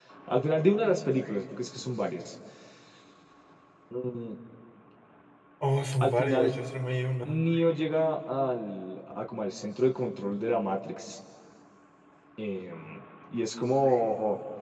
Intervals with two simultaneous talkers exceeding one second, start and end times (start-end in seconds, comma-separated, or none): none